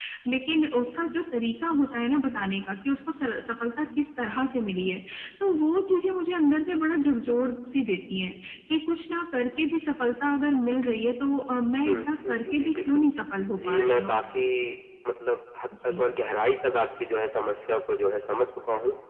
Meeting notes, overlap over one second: present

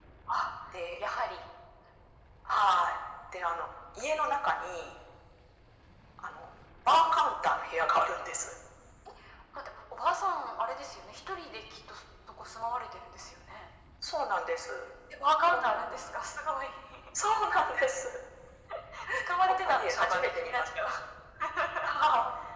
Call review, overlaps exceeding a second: present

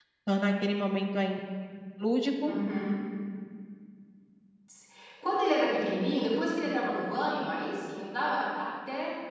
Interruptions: none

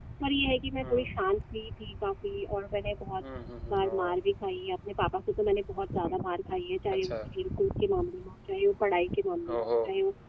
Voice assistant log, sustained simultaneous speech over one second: none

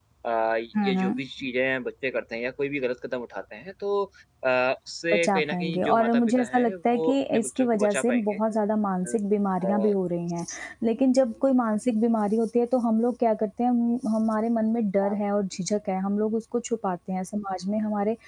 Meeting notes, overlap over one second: present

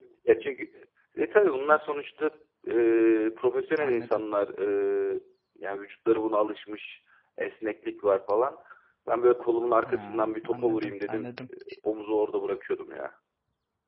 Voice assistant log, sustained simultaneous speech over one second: present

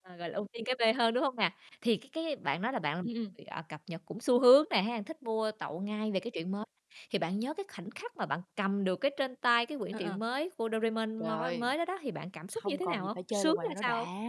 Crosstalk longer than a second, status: present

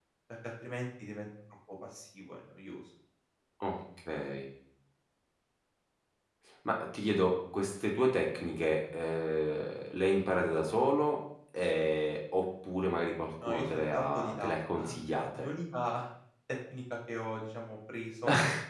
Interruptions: present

